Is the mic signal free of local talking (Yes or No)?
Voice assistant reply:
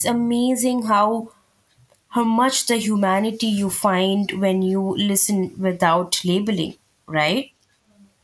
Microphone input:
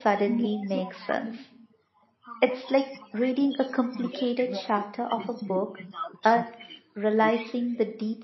No